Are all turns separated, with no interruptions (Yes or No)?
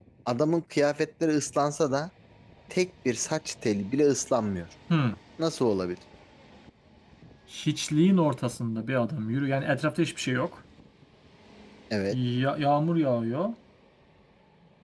Yes